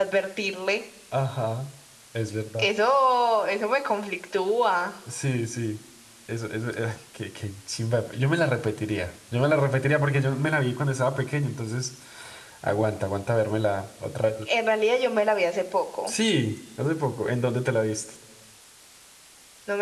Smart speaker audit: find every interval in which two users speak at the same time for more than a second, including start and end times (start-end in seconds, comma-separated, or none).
none